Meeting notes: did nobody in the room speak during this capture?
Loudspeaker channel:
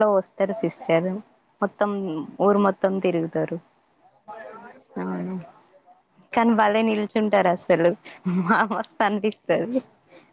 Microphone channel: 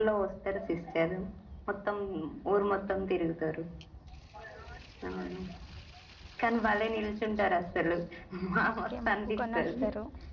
No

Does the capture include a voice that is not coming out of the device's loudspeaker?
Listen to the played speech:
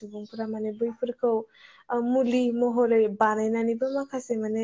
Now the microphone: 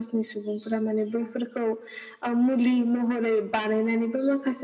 No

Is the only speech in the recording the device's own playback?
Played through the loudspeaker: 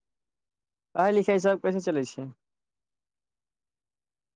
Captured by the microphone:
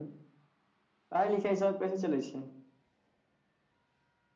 Yes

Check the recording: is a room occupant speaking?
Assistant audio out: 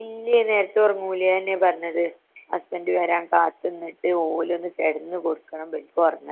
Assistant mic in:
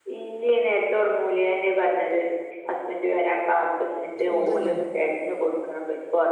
Yes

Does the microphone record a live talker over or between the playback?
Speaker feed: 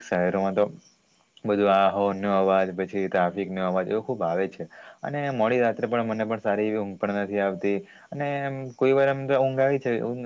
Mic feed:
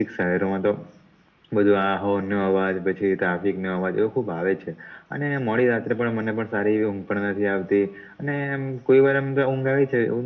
No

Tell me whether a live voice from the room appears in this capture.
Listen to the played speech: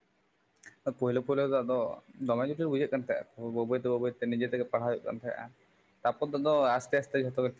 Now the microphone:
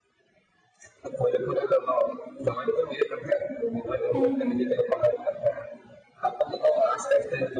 Yes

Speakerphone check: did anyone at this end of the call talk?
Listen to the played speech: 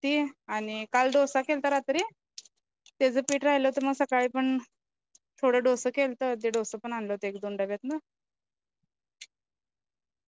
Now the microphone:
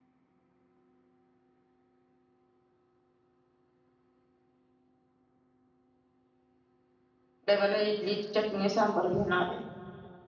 Yes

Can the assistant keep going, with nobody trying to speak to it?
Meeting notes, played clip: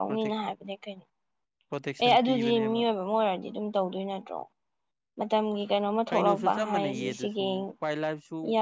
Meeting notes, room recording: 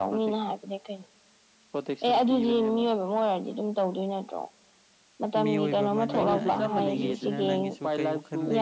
No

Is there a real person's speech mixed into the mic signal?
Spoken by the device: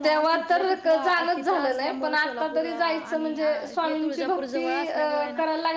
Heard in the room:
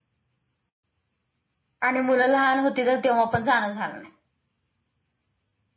Yes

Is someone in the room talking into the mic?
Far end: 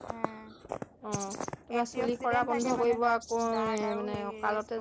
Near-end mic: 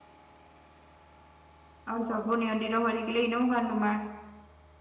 Yes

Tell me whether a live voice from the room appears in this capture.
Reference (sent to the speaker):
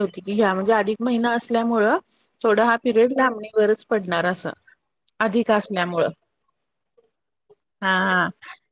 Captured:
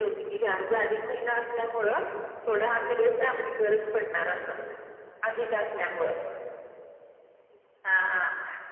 No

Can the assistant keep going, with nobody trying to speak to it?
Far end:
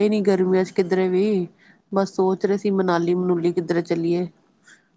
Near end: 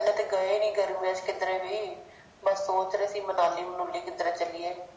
Yes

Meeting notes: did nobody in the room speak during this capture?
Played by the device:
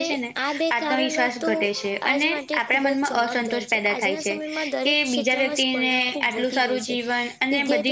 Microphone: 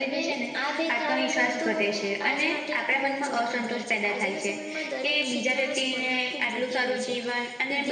Yes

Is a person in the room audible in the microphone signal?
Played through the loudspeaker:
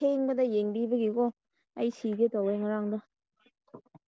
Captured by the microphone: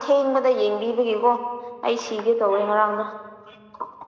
No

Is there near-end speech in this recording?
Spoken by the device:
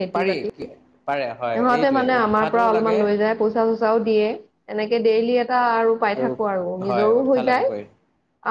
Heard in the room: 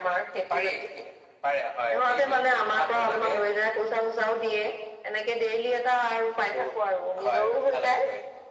No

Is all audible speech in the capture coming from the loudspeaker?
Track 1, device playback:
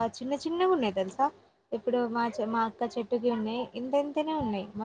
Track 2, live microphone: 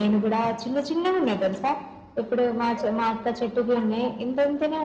Yes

